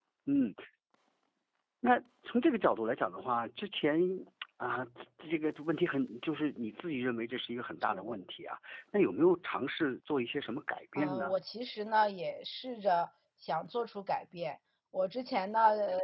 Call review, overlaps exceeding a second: none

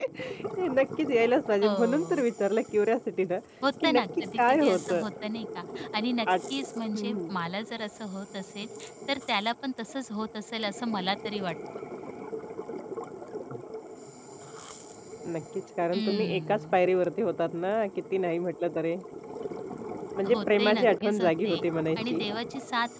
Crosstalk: present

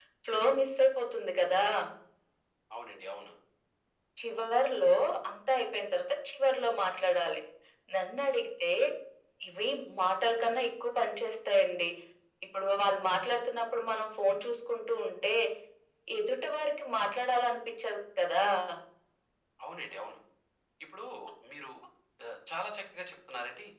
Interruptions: none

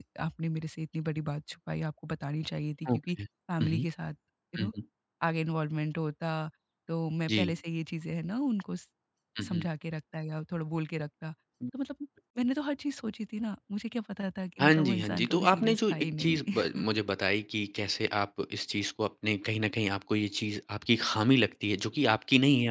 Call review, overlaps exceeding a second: present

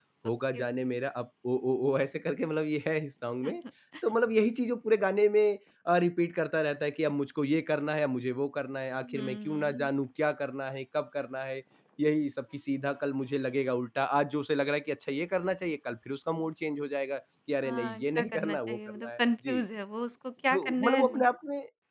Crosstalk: present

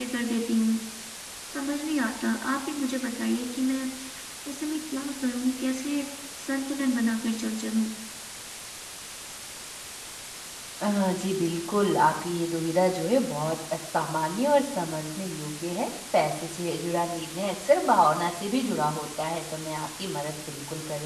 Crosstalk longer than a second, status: none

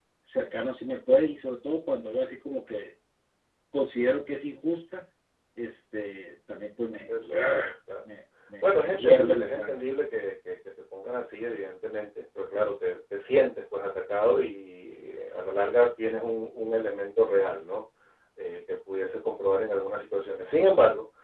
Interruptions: present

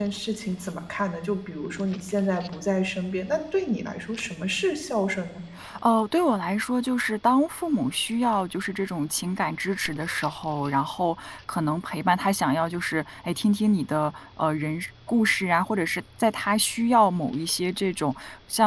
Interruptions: none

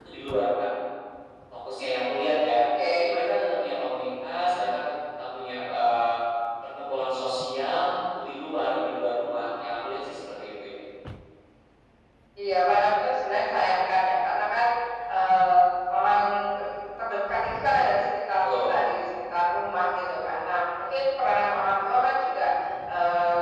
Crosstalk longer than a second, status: none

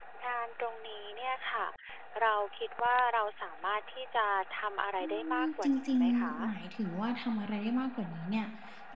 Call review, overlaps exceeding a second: present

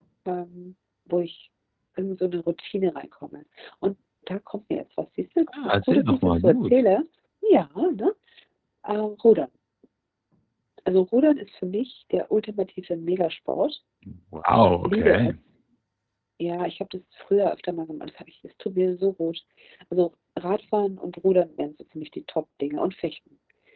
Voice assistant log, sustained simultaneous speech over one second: present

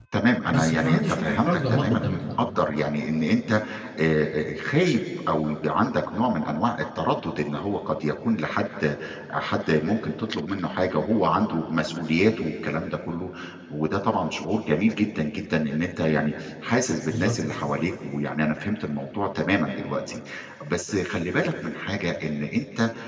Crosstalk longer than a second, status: present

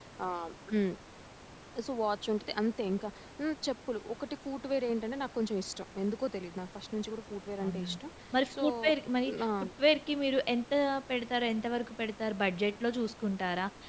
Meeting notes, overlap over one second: none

